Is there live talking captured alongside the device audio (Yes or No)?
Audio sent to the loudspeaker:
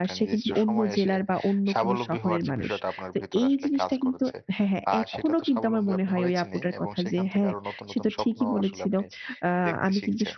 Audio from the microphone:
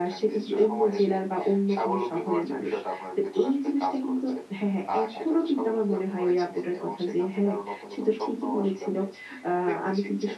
No